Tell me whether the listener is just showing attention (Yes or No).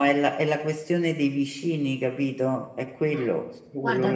No